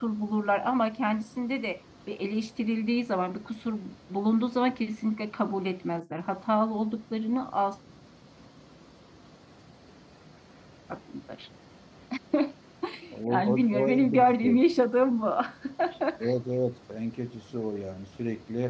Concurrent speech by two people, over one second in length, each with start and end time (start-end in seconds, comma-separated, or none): 13.3-14.5